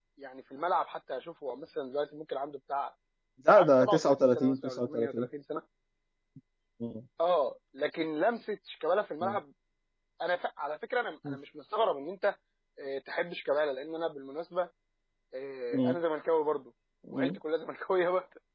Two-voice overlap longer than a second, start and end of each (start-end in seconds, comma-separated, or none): 3.5-5.3